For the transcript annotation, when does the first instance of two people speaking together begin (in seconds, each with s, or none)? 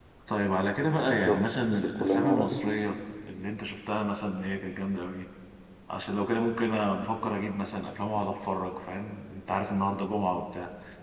1.1 s